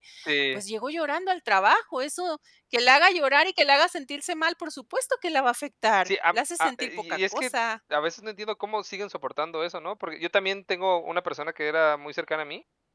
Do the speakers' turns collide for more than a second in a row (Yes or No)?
Yes